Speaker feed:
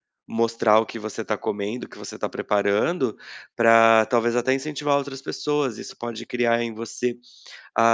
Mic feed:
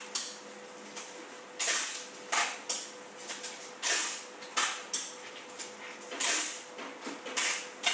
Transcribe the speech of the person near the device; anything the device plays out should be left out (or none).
none